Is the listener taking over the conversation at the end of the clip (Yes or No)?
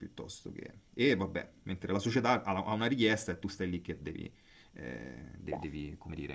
No